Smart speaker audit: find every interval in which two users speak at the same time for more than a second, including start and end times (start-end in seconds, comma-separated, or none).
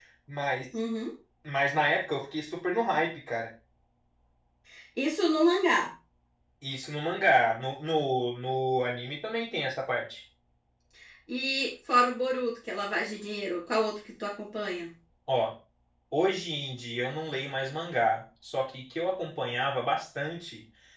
none